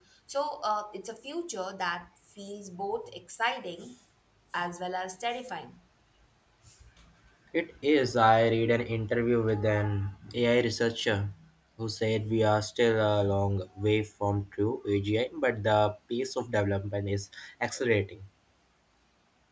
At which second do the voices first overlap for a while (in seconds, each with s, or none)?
none